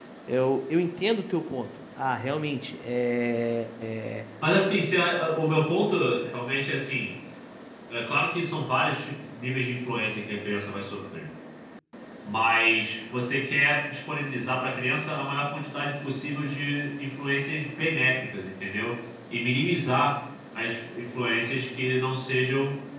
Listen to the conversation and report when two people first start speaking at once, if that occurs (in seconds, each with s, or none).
none